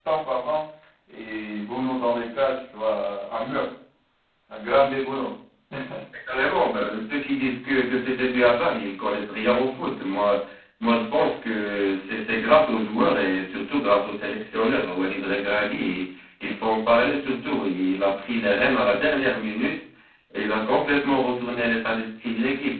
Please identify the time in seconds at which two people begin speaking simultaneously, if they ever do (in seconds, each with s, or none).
none